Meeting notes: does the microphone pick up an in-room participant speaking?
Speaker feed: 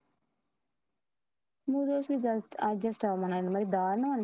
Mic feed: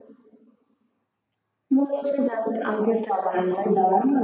No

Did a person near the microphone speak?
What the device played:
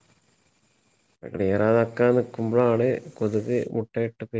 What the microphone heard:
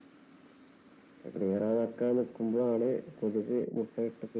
No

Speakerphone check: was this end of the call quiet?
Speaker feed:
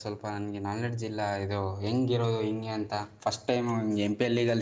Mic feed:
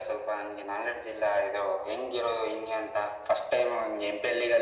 Yes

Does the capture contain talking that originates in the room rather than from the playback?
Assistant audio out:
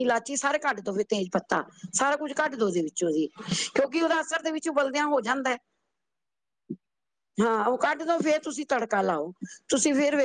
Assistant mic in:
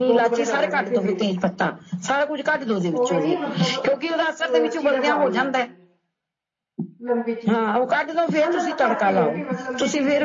Yes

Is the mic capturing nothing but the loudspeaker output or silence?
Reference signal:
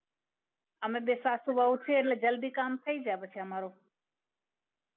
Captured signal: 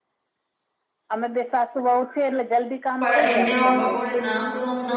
No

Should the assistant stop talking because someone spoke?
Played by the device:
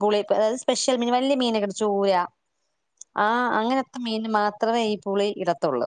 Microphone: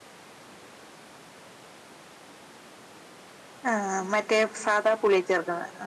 Yes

